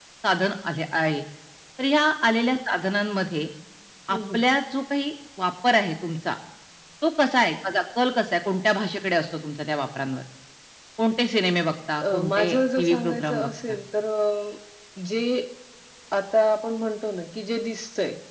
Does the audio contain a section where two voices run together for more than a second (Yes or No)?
Yes